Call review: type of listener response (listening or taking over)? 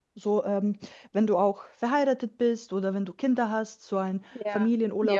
taking over